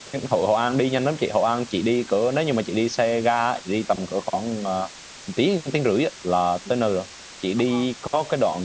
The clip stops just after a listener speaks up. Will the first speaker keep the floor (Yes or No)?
Yes